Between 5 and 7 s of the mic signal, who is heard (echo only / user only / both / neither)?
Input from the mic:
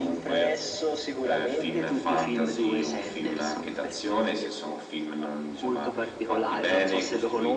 echo only